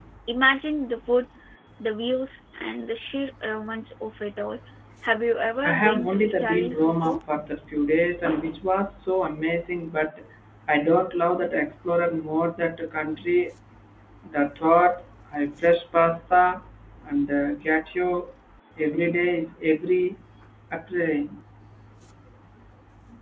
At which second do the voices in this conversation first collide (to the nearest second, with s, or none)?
6 s